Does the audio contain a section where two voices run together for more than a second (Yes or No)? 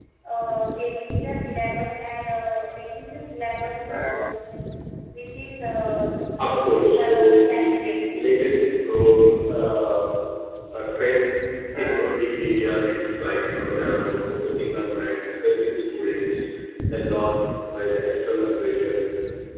Yes